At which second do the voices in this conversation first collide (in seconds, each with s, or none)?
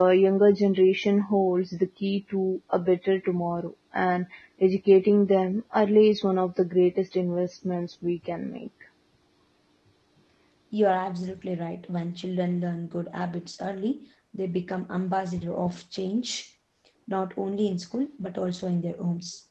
none